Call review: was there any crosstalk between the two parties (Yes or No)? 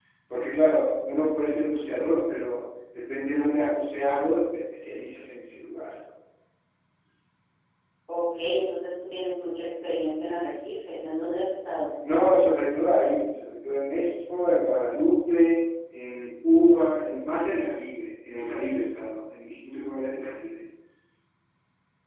No